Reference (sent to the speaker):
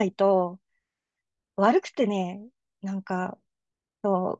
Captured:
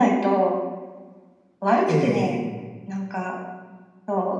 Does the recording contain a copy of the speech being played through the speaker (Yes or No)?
Yes